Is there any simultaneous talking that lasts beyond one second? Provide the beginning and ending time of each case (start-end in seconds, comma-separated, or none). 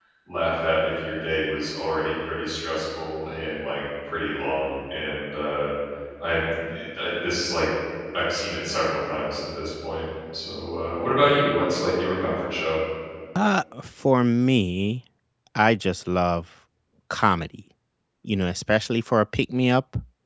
none